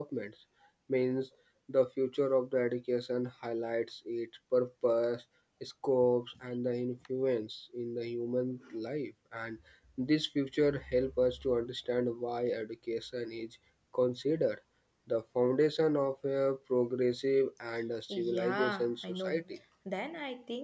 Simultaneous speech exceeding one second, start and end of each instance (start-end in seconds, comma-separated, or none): 18.1-19.4